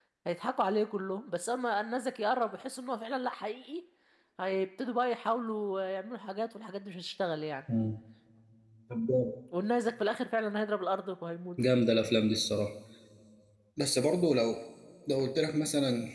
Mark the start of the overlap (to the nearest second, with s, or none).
none